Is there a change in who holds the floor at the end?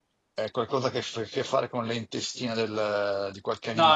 Yes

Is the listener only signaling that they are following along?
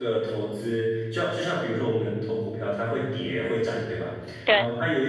Yes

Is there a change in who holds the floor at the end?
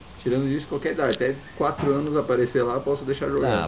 Yes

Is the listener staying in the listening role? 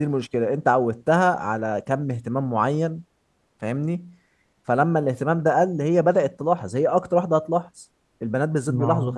Yes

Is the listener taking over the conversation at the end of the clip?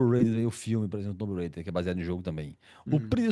No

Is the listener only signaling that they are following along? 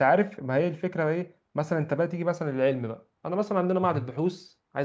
Yes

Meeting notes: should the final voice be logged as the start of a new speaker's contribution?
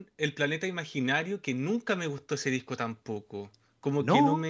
No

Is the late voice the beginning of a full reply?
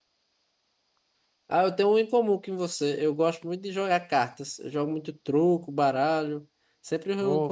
No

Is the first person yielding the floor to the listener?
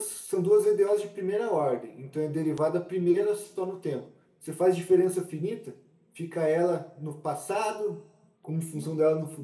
No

